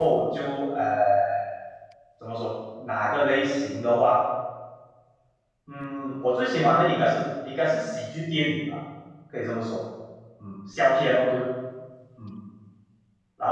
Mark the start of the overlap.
none

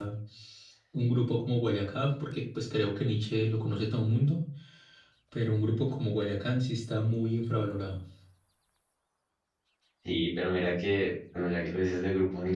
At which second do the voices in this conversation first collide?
none

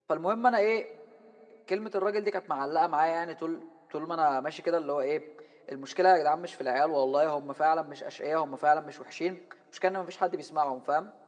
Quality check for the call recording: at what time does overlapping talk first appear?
none

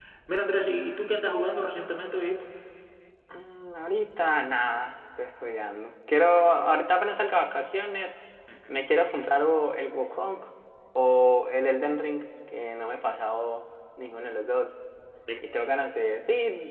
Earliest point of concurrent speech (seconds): none

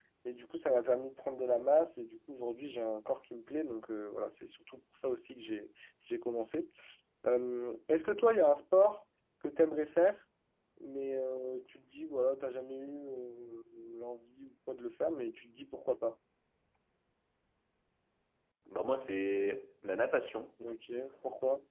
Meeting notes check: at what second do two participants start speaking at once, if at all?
none

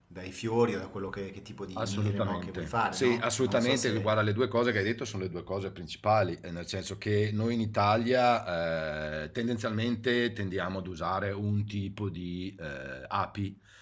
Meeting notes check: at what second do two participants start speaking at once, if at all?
2 s

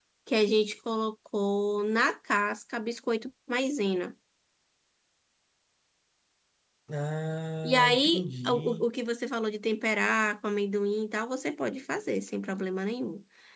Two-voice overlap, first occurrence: 8 s

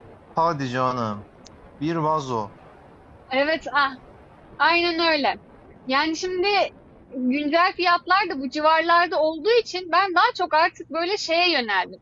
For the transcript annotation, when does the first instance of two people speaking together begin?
none

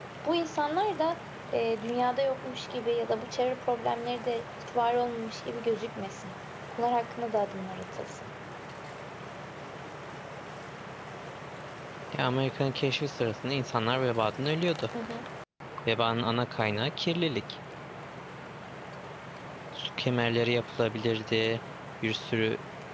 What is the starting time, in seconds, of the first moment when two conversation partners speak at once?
none

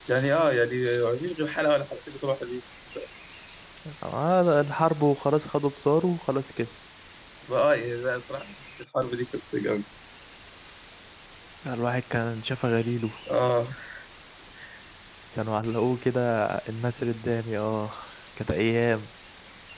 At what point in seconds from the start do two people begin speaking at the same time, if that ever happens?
none

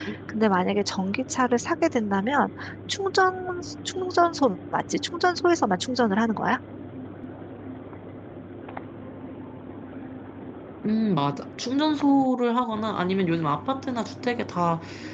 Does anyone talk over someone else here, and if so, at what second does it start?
none

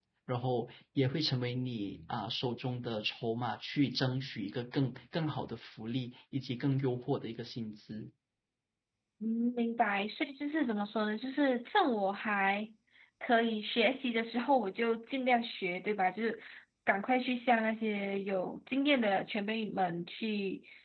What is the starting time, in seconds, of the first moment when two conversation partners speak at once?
none

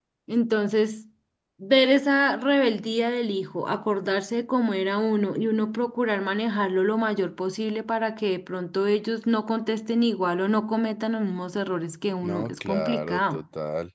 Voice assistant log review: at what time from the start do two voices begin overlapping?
12 s

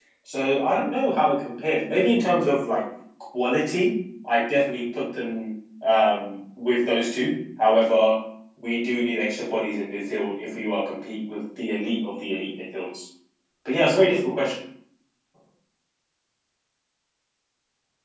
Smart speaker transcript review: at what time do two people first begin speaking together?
none

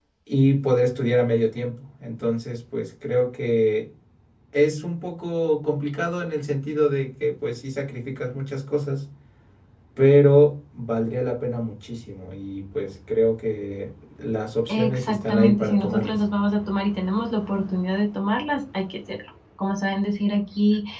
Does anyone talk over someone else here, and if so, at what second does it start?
15 s

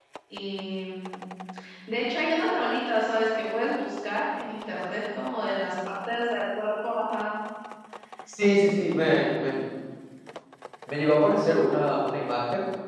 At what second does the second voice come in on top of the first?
none

